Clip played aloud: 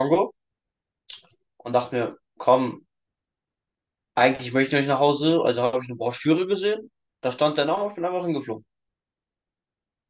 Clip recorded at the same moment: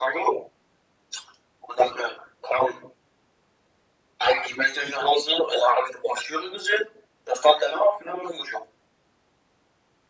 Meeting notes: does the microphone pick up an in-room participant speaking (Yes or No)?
No